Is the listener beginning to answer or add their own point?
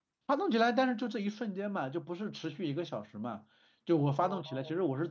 No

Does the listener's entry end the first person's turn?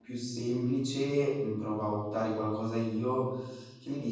Yes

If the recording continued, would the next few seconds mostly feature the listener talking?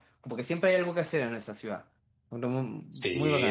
Yes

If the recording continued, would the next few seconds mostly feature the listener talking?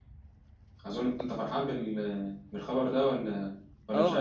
Yes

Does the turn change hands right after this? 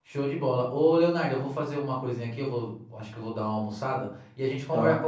No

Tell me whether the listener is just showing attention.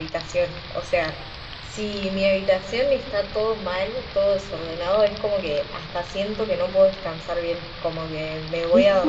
Yes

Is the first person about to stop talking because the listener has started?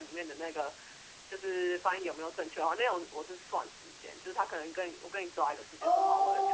No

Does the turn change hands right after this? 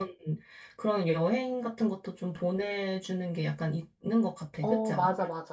Yes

